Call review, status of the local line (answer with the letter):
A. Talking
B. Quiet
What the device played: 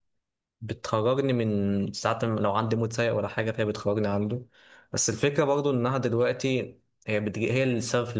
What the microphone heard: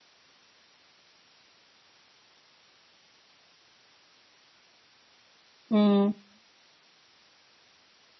A